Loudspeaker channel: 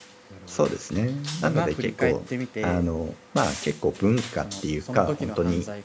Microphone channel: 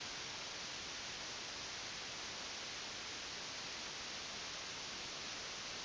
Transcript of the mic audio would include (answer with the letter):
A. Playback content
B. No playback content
B